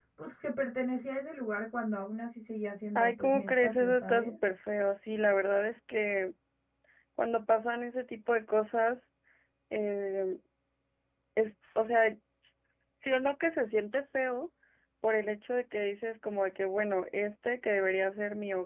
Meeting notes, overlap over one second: present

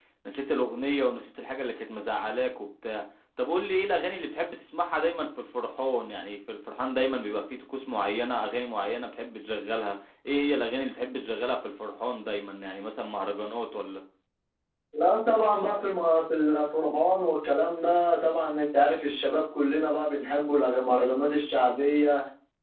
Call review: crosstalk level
none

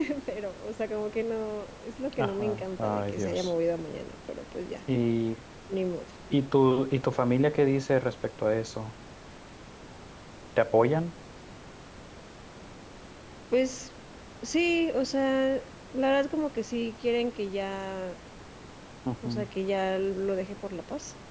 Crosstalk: present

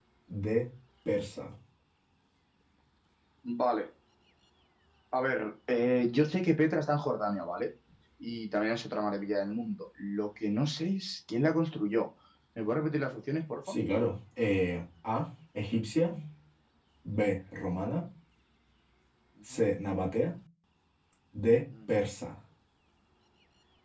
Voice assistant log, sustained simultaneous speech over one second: none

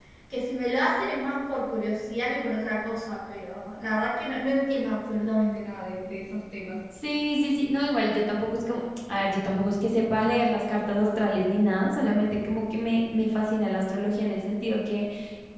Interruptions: none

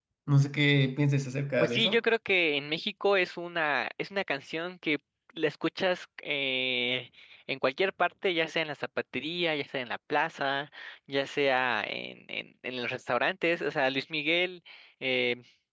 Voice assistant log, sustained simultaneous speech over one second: none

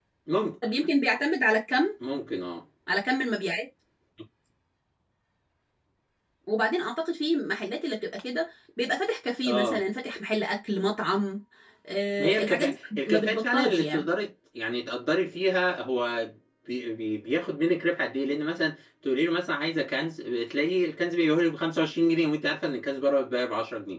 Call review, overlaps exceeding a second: present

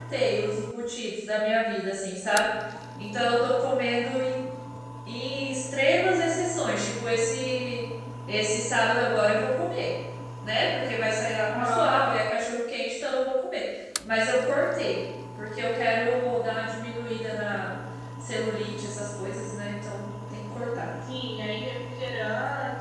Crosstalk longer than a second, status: none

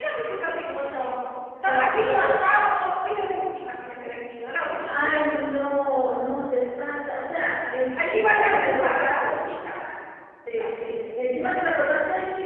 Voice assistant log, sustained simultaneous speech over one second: present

